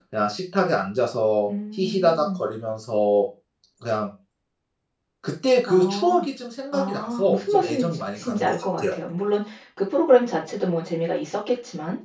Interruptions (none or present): present